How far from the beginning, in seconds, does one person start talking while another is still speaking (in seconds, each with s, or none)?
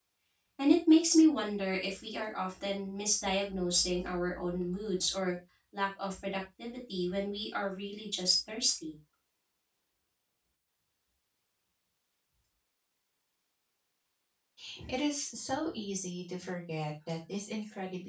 none